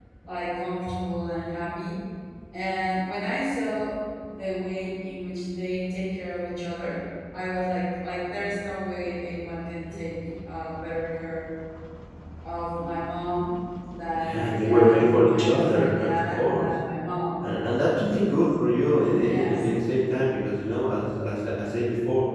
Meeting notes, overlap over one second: present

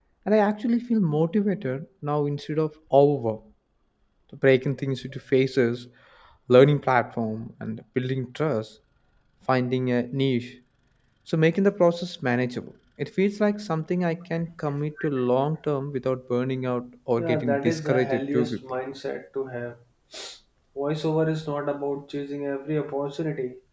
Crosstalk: present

